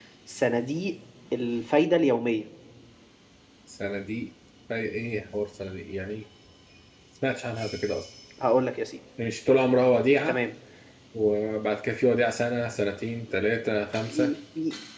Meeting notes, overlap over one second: none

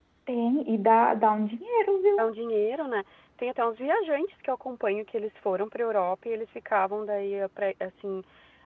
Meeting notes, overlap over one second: none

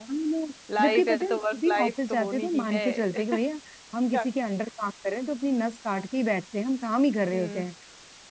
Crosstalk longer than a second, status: present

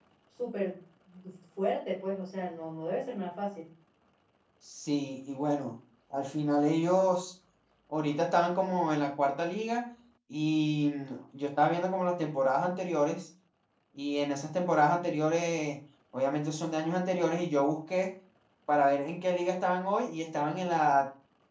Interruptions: none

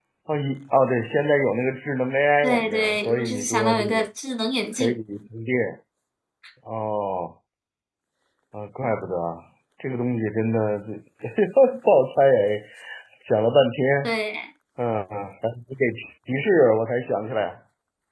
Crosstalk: present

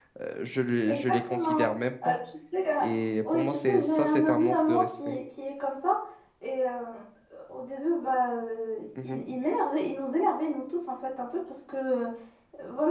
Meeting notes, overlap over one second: present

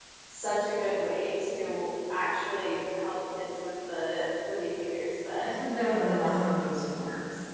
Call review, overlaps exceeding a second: none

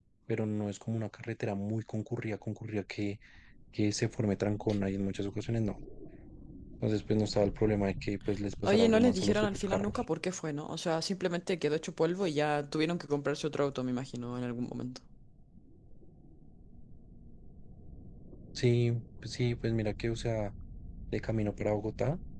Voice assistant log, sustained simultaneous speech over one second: present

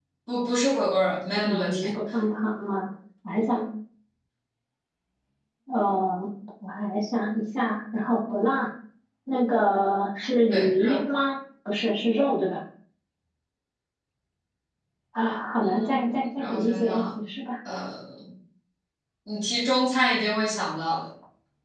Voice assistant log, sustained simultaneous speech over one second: present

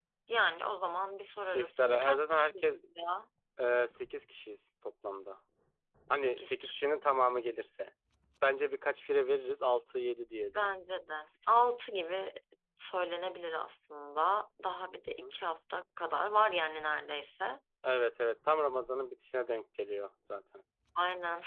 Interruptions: present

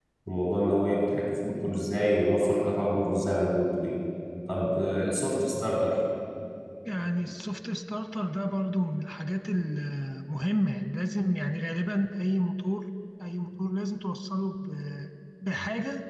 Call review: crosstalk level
none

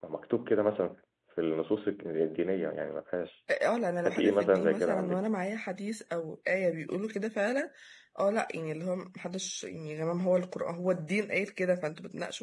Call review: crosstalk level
present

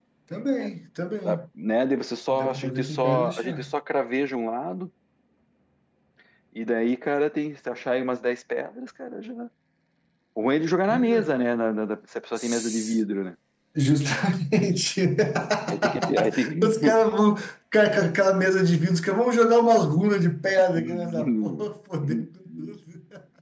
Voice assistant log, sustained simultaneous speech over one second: present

